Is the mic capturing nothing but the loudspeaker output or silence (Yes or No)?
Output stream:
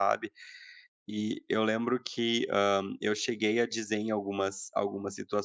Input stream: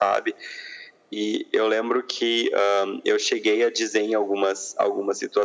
Yes